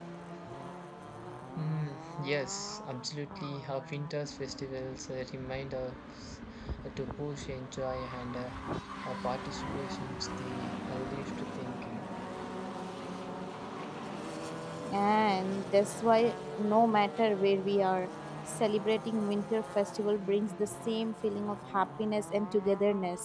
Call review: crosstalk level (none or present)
none